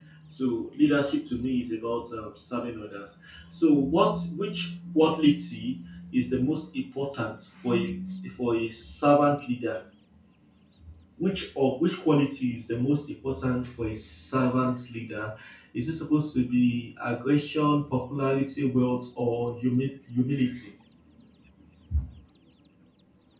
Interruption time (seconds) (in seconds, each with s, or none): none